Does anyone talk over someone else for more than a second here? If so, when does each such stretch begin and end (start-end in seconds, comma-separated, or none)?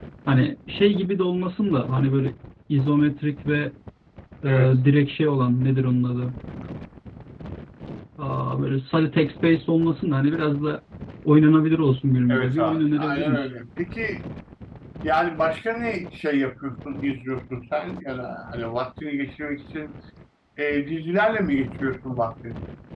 12.3-13.5